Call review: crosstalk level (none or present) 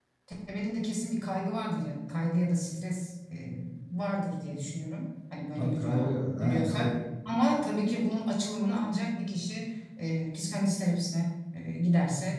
present